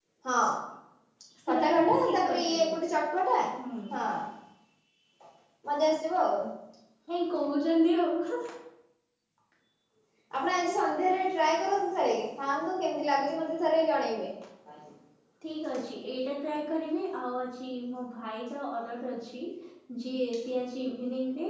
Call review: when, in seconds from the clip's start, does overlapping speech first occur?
1.5 s

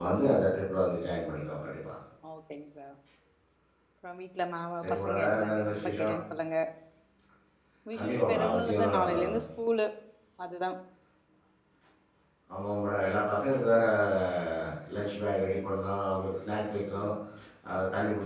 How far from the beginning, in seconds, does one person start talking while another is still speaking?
4.8 s

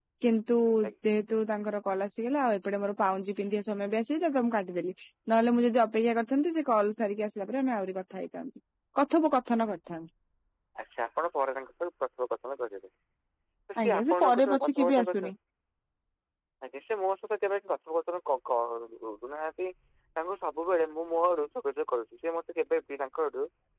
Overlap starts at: 13.8 s

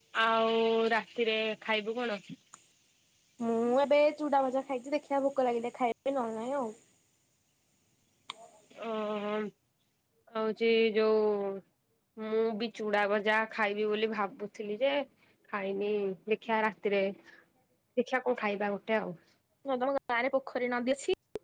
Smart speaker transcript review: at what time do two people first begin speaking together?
none

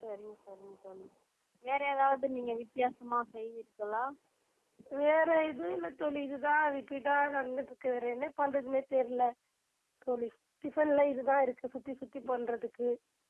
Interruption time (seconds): none

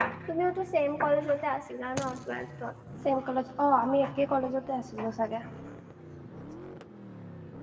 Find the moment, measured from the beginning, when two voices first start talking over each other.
none

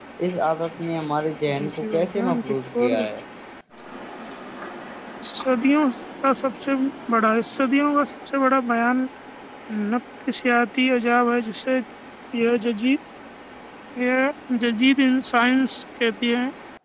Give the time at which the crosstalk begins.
1.5 s

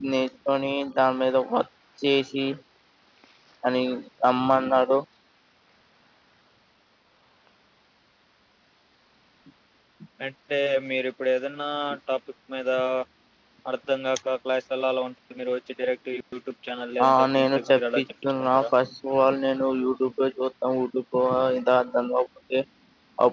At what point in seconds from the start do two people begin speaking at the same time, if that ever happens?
17.0 s

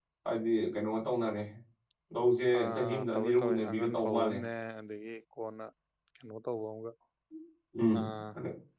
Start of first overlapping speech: 2.6 s

